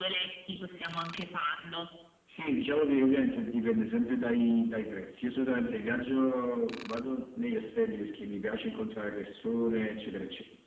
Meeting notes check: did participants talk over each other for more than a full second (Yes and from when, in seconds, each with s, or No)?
No